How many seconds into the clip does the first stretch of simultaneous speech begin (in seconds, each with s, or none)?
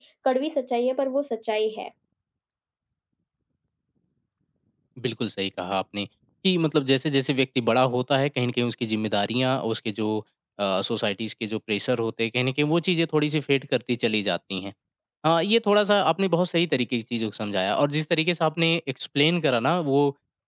none